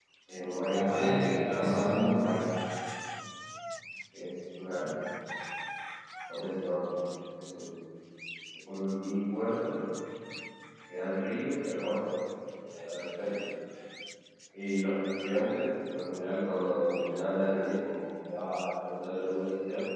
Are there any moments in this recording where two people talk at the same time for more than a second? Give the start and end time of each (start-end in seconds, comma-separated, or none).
0.7-2.2